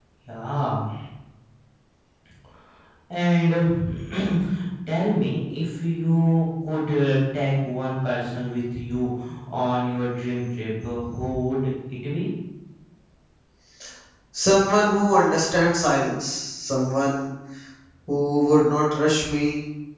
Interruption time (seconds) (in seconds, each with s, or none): none